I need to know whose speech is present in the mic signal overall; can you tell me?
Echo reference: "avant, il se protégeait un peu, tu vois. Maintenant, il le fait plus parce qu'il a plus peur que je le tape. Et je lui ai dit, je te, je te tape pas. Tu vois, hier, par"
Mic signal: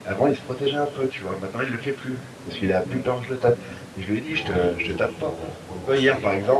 both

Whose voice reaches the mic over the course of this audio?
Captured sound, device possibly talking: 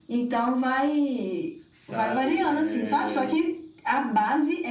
both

